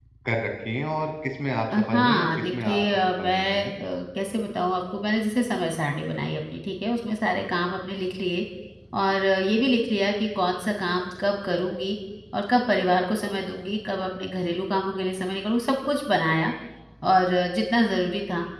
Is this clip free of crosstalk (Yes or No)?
No